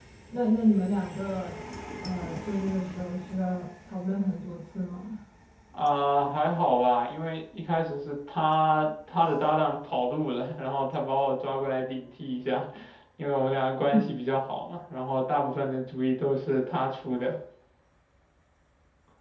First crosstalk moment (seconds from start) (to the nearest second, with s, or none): none